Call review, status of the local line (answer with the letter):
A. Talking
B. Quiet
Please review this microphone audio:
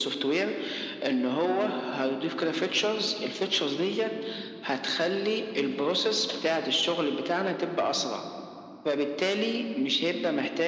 B